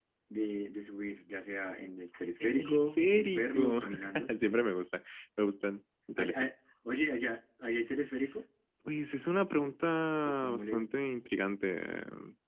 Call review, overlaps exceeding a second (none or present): present